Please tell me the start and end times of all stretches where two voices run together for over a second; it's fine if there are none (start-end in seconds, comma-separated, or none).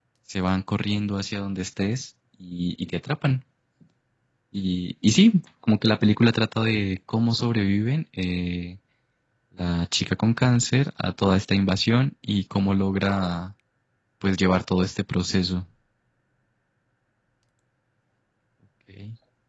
none